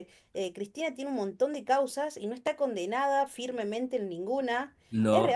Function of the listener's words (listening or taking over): listening